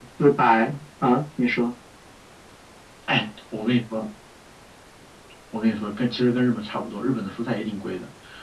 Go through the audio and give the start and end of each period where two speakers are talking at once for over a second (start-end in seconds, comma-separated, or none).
none